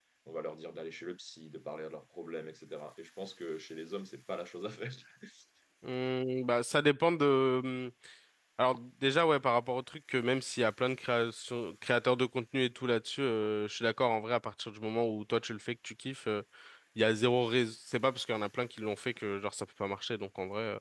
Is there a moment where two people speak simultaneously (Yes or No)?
No